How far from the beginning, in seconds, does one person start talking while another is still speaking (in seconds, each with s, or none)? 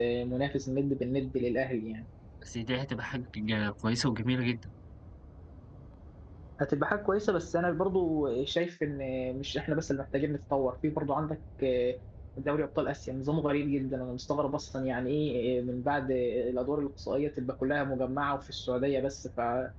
none